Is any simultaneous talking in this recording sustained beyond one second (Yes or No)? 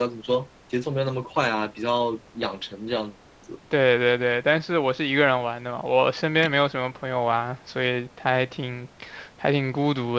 No